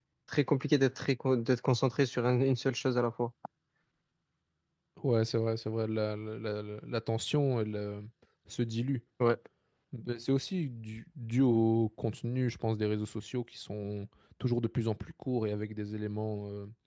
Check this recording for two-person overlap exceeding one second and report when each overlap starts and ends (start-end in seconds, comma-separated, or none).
none